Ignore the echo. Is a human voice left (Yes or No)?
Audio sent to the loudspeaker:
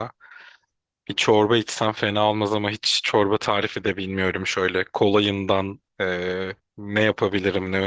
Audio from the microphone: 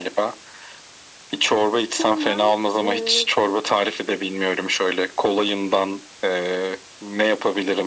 Yes